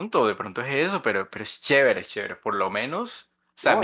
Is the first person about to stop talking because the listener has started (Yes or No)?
Yes